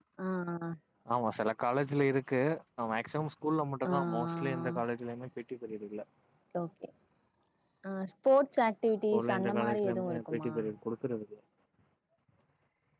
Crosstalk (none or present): present